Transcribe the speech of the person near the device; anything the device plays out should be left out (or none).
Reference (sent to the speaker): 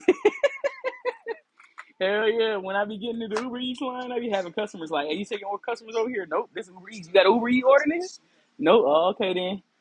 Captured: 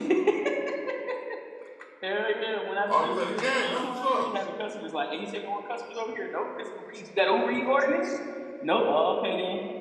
Oh, you was at the game. That's what's up.